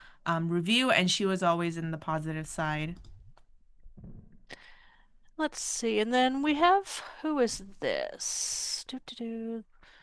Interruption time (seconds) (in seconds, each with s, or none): none